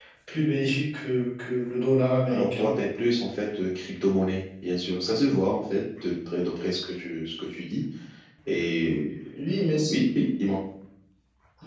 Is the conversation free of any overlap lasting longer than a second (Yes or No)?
Yes